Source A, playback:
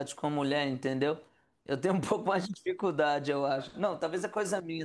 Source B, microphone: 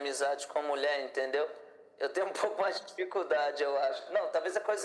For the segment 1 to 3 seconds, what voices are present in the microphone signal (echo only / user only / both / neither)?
echo only